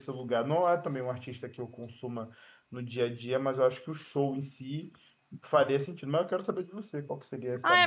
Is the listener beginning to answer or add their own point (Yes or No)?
Yes